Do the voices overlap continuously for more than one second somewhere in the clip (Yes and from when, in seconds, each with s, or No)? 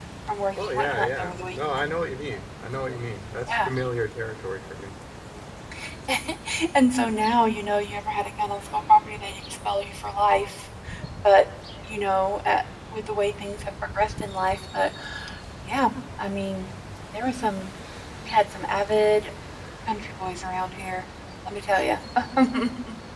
Yes, from 0.6 s